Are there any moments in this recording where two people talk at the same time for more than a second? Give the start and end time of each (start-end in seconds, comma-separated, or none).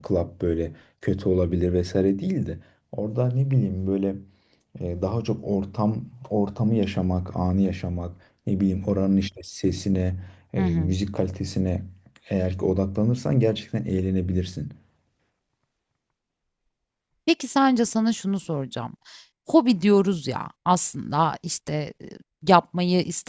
none